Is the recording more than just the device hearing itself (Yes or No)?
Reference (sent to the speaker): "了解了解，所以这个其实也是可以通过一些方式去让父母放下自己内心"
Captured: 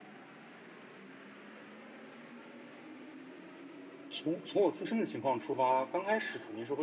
Yes